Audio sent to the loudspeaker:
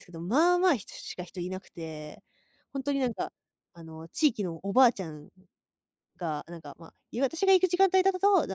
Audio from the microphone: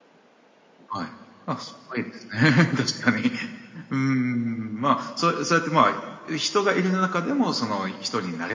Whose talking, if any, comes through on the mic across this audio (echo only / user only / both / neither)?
user only